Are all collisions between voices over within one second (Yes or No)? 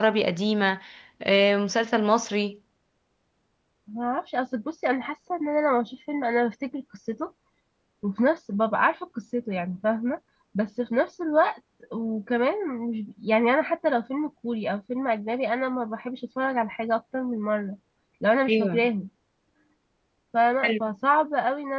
Yes